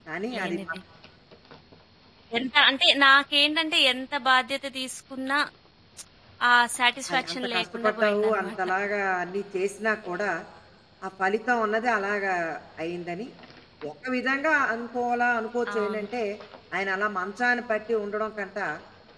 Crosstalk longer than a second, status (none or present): present